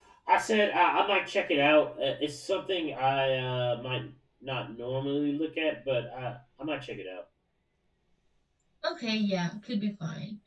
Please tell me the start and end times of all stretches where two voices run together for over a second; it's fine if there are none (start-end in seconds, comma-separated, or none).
none